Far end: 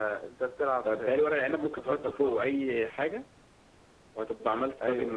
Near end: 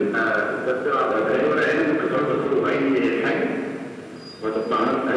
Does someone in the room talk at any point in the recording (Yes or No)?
No